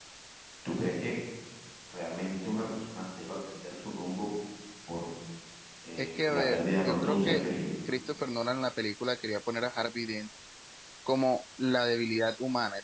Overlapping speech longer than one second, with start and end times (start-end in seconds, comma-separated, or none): 6.0-7.4